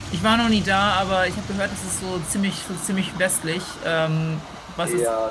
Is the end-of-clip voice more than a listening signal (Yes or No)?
Yes